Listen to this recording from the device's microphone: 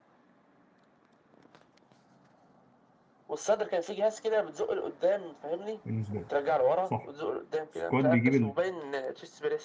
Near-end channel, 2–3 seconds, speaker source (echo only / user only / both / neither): neither